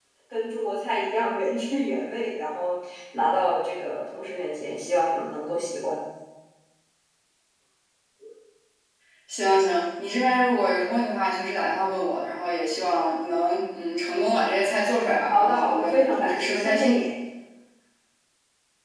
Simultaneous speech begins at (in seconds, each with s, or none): 15.3 s